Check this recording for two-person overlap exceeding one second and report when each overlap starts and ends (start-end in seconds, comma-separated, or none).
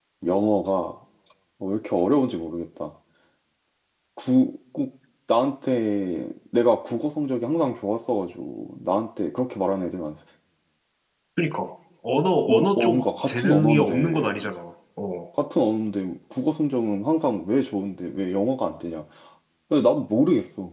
12.5-14.4